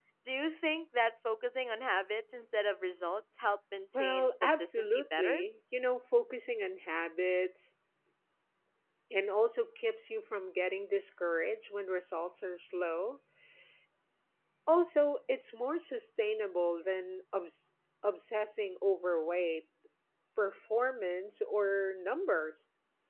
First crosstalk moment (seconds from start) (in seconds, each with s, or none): 3.9 s